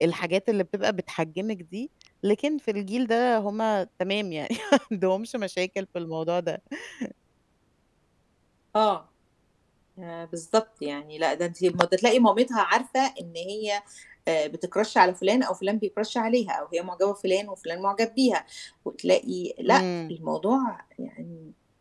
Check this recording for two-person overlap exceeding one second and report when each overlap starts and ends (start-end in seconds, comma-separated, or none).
none